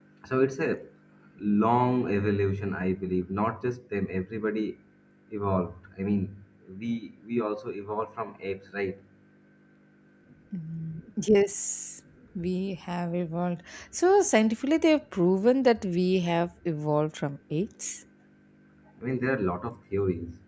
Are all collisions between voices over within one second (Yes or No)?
Yes